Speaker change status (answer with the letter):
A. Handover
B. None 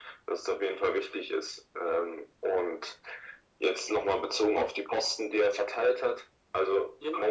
B